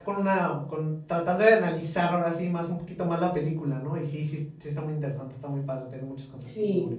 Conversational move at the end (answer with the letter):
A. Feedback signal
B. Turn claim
B